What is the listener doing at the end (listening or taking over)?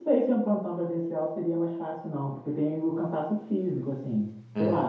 listening